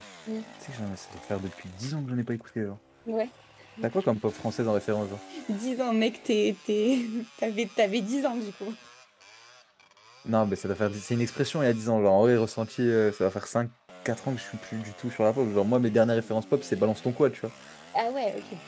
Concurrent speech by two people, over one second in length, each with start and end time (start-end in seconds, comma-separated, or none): none